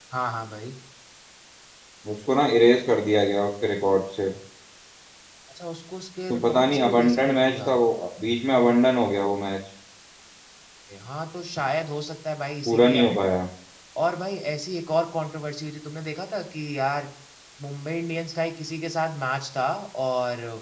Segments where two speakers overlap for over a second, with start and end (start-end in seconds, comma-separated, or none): 6.3-7.7